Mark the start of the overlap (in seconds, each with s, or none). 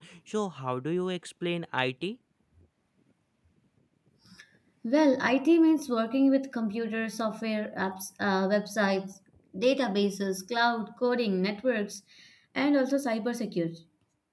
none